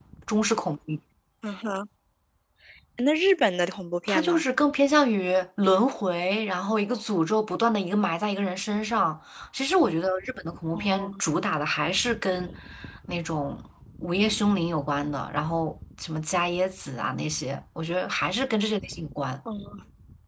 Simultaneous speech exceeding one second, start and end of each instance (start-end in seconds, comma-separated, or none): none